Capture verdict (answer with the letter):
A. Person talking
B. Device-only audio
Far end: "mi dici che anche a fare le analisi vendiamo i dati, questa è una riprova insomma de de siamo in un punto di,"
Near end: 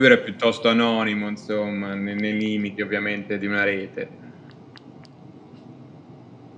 A